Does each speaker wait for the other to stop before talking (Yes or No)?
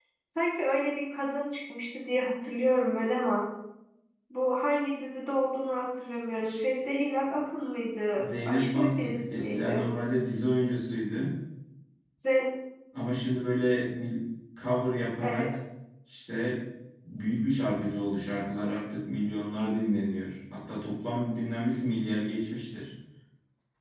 No